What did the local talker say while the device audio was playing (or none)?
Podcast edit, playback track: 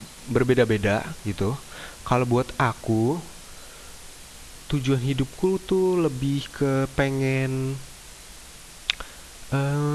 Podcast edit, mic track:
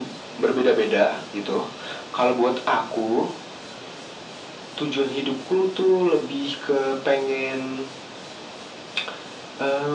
none